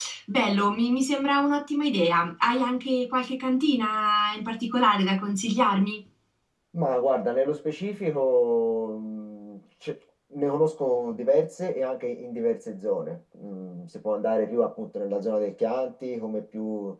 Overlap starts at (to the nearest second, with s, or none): none